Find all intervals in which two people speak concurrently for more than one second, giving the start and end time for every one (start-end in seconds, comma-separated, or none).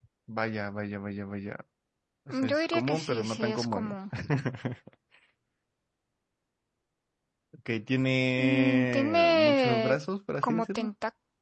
2.3-4.0, 8.4-10.0